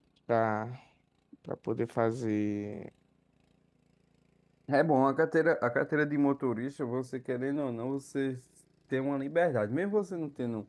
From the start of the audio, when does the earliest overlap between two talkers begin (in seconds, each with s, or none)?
none